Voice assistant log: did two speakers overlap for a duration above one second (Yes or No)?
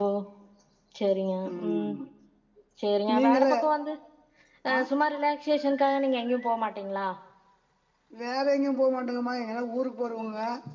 No